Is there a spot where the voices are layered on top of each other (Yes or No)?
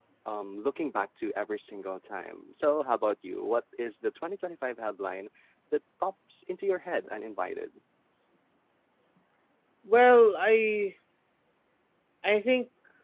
No